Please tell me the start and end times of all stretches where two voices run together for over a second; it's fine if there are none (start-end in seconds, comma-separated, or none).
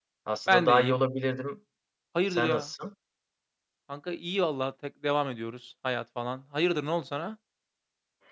none